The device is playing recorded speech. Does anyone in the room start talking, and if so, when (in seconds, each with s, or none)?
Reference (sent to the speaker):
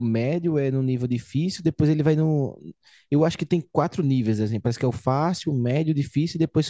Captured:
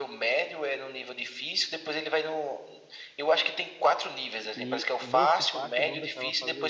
4.5 s